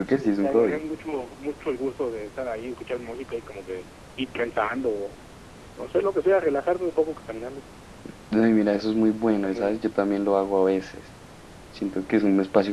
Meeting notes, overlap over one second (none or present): none